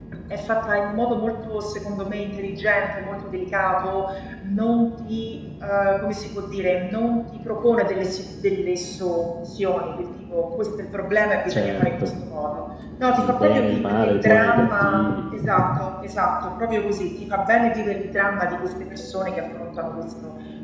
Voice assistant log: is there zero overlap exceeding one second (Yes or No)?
No